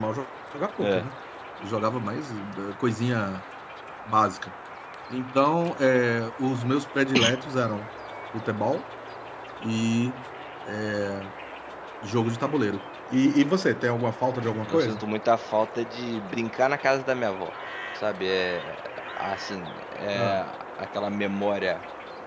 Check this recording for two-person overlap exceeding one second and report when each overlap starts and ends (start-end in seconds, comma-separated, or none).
none